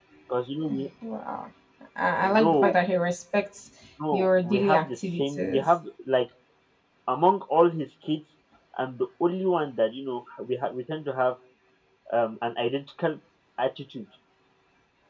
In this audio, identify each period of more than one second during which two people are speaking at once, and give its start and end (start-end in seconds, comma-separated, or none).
4.1-5.8